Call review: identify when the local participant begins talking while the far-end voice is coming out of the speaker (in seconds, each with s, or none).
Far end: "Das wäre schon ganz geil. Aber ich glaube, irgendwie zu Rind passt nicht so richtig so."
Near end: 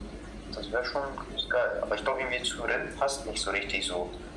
none